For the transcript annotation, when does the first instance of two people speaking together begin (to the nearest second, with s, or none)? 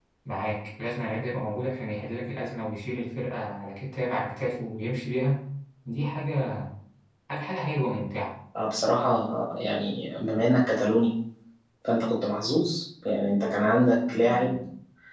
none